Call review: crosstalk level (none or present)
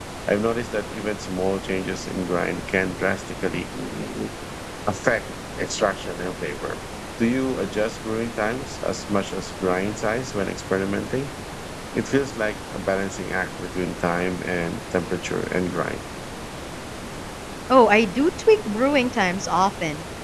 none